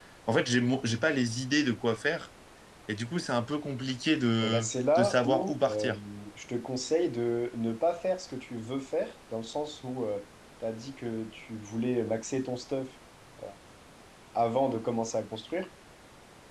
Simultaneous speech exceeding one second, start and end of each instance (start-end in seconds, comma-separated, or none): 4.4-5.9